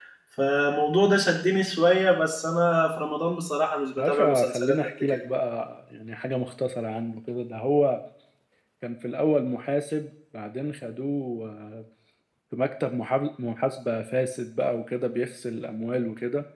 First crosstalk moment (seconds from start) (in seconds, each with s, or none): 4.0 s